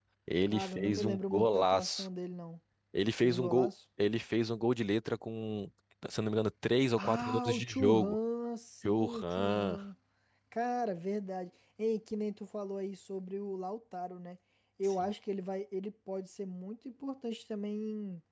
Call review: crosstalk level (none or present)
present